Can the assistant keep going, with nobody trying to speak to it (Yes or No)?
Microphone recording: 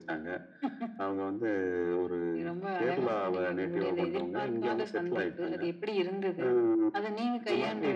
Yes